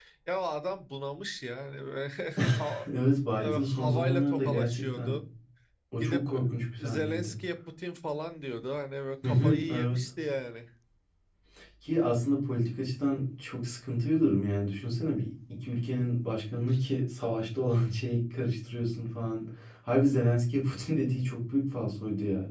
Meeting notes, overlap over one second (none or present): present